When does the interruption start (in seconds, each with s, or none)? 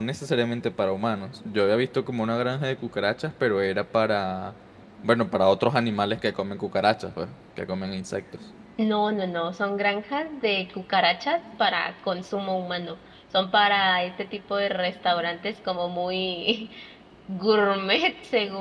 none